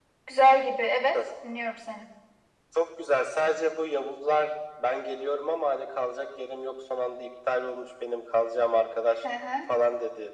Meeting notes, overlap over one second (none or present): none